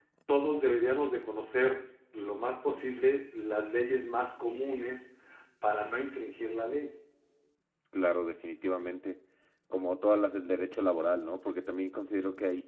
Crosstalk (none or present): none